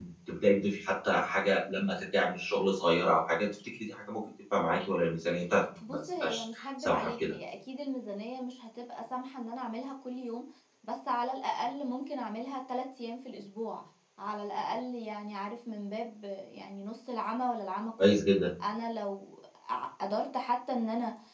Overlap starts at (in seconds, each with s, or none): 5.8 s